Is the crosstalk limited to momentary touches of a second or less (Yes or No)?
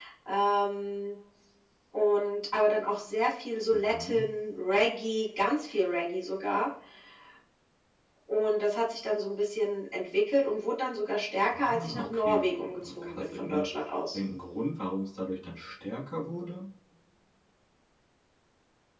No